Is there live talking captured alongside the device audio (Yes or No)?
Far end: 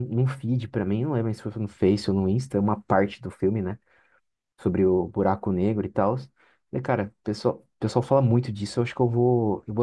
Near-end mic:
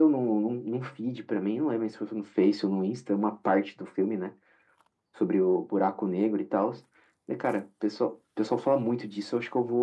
No